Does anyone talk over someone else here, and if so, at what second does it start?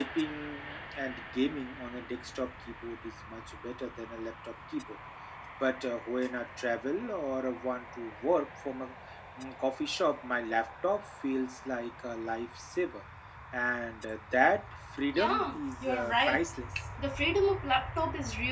15.1 s

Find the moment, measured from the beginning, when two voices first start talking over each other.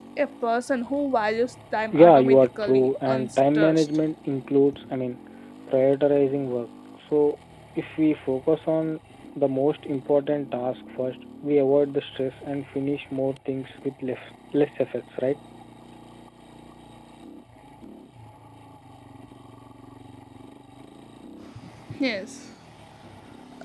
1.9 s

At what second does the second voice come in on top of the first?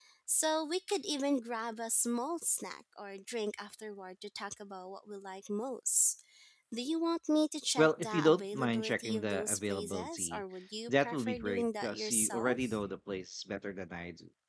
7.8 s

